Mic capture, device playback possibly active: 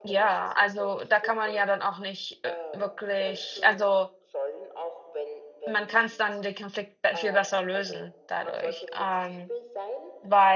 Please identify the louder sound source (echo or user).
user